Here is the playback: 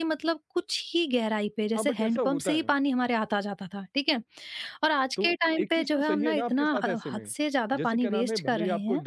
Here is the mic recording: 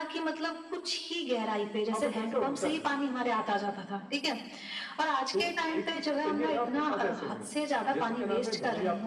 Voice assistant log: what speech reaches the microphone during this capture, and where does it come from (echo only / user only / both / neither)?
echo only